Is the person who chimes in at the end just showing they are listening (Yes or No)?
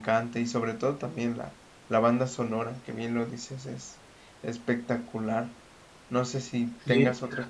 Yes